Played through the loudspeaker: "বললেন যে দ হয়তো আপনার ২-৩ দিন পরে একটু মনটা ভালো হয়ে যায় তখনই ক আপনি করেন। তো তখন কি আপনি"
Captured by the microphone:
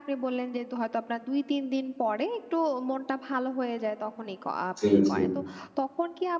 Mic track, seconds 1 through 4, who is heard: echo only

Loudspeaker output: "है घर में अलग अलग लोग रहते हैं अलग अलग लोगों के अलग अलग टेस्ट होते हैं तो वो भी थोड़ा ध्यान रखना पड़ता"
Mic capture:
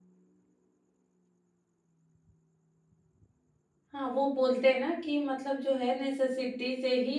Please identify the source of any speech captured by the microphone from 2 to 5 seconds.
user only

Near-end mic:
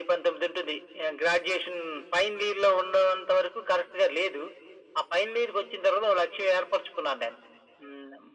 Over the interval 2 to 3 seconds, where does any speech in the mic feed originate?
echo only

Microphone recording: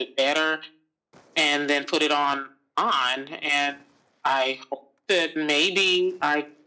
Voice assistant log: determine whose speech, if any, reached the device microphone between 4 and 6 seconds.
echo only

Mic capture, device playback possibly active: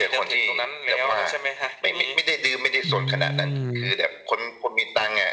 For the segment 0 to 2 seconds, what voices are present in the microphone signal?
echo only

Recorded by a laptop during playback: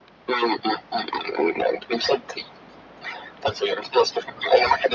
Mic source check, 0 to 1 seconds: echo only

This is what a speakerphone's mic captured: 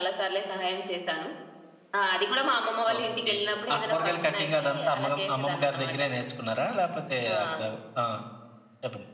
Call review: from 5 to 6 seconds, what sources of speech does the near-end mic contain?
echo only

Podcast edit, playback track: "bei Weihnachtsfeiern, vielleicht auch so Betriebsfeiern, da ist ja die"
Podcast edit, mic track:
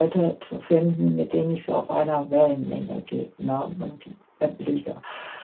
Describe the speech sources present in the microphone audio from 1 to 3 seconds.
user only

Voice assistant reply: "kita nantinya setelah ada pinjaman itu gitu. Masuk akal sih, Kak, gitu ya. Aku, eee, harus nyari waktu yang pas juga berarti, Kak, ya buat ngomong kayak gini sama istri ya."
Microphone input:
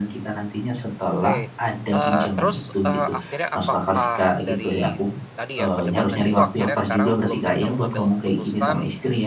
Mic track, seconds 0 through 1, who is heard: echo only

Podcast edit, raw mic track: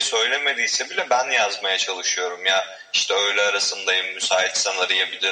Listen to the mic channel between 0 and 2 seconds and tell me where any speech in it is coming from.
echo only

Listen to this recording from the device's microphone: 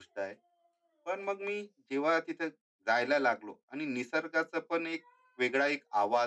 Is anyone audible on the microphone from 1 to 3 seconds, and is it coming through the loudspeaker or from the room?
user only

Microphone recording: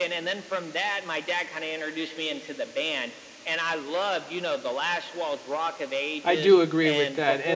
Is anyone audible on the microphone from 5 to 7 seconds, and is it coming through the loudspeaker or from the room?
both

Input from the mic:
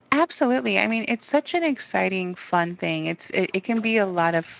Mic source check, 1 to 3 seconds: user only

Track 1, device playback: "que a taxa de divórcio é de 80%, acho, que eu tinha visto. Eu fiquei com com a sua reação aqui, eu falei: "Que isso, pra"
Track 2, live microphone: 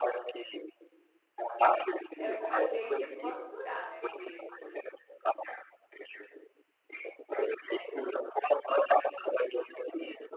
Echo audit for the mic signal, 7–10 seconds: echo only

